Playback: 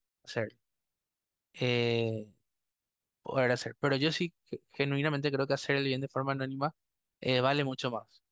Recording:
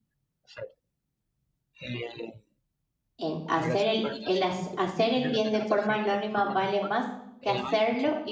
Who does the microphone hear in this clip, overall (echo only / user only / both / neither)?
both